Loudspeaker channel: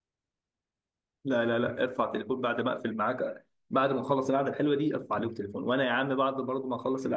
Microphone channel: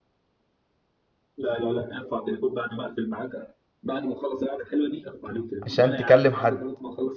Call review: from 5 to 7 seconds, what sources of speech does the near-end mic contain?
both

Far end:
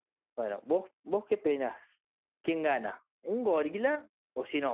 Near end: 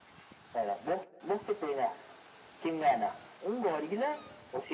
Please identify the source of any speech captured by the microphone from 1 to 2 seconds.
echo only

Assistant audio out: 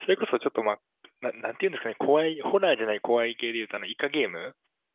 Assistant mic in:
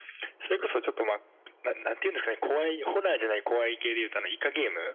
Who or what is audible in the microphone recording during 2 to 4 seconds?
echo only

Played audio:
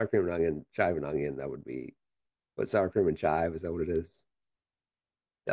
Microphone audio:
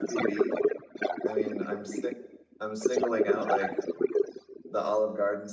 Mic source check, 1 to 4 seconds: both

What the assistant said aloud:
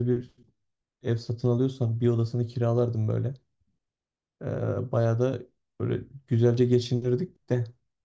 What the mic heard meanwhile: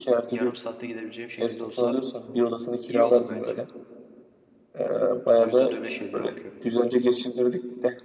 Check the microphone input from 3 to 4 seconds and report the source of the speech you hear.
both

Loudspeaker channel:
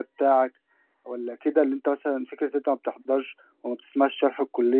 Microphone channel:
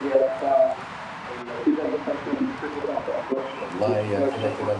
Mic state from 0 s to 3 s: echo only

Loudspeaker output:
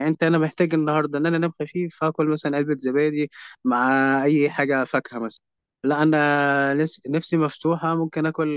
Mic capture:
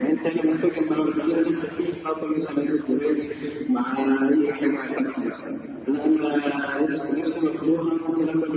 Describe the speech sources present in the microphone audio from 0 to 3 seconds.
echo only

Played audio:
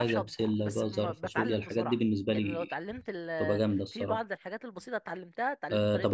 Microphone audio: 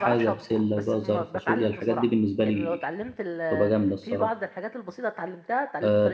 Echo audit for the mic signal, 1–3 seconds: echo only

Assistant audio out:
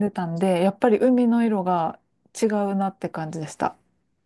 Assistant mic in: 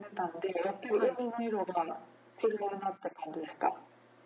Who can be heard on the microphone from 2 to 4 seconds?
echo only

